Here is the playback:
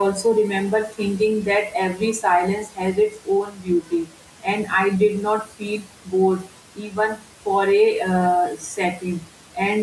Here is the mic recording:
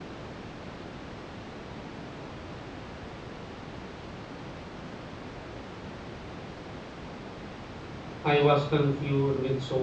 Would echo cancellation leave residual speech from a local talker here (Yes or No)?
Yes